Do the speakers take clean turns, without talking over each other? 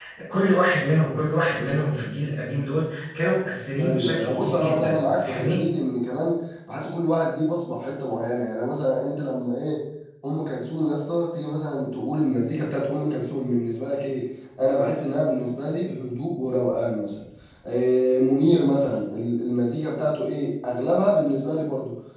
No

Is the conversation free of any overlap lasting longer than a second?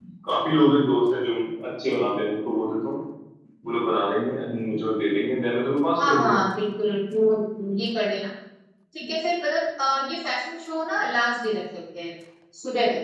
Yes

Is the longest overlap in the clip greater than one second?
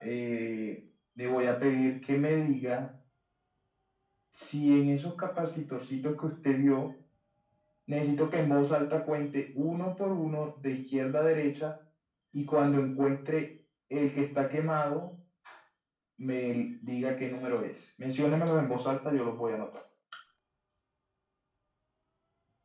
No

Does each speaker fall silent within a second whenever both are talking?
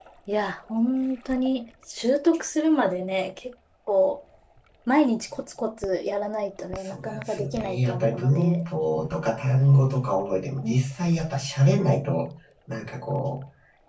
No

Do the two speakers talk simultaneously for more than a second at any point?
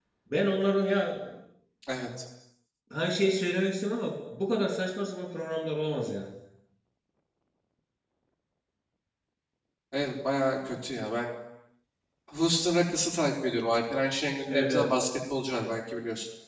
No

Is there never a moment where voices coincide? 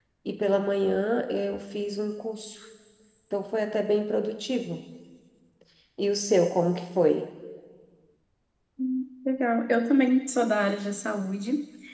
Yes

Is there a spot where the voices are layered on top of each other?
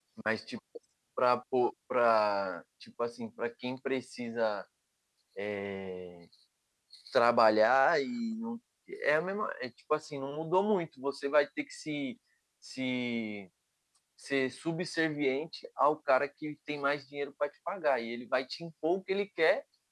No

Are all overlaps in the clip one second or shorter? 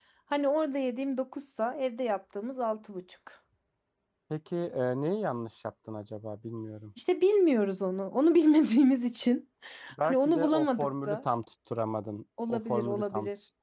No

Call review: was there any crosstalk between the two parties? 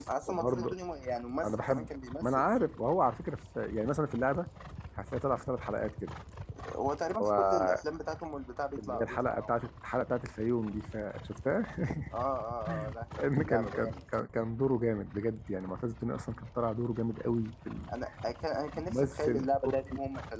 Yes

